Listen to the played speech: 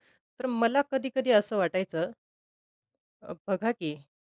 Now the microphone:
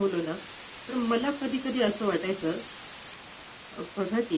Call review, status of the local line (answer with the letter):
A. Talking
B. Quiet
B